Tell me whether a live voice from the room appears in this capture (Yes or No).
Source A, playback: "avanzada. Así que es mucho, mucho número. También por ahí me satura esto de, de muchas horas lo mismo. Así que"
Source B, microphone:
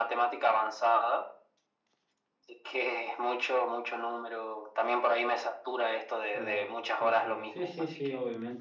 Yes